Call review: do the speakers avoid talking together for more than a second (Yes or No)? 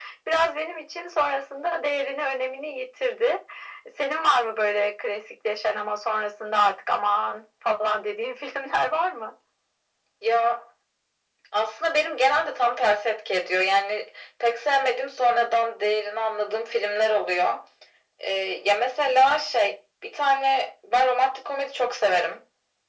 Yes